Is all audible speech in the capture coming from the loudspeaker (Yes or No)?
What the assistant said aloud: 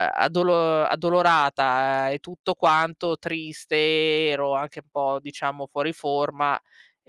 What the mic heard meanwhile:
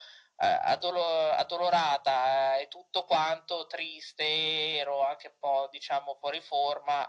Yes